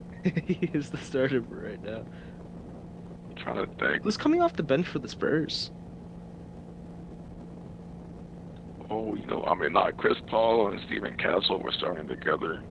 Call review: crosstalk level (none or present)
none